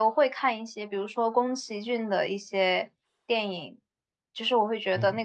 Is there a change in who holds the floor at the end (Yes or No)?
No